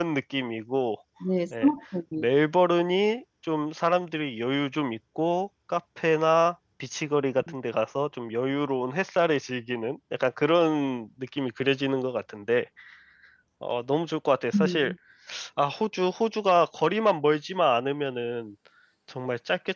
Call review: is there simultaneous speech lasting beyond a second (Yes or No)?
No